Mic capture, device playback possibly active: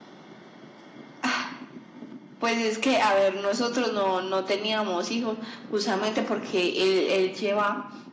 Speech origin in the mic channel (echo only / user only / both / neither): echo only